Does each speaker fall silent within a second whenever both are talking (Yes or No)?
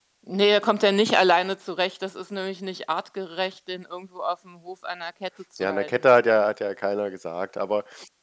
Yes